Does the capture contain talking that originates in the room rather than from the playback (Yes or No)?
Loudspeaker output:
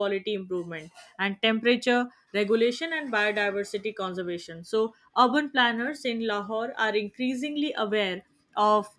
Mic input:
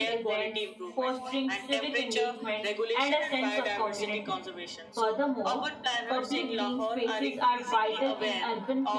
Yes